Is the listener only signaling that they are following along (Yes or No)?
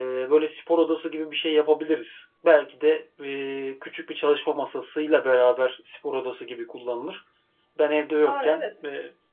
Yes